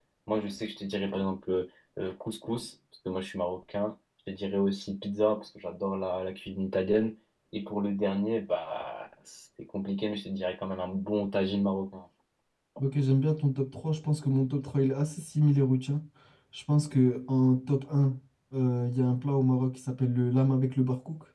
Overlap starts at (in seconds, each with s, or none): none